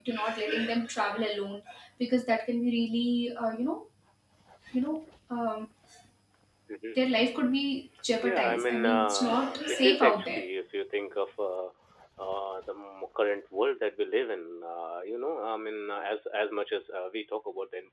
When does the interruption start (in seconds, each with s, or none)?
8.2 s